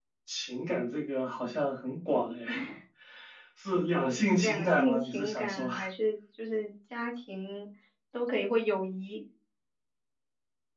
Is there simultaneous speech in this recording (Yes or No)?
Yes